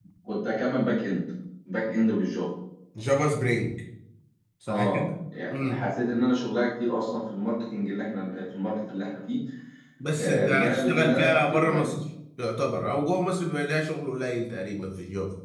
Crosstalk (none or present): present